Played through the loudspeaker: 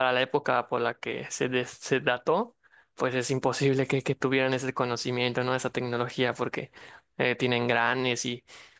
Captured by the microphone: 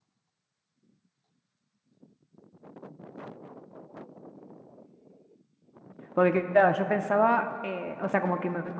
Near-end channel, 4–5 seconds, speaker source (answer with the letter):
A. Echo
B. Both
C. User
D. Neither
D